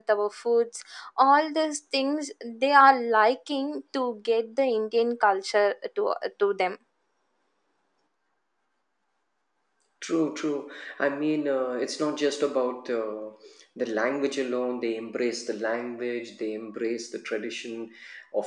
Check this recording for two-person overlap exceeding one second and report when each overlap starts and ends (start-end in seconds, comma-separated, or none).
none